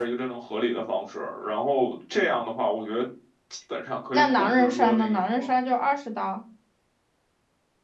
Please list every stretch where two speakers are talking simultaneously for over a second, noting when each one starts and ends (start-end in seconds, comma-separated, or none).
4.1-5.5